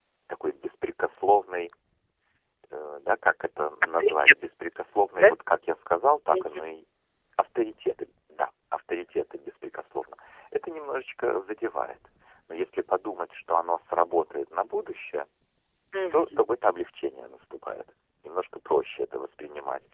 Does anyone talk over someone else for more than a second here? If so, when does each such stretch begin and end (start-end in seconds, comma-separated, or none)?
none